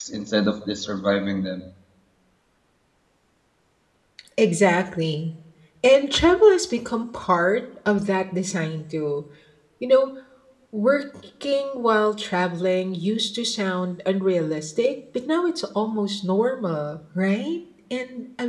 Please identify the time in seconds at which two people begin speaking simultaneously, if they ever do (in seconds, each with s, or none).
none